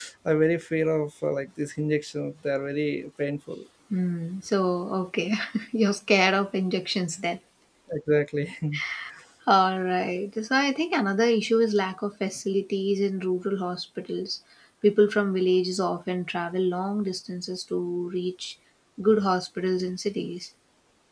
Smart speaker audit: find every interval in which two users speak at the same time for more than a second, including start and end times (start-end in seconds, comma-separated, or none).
none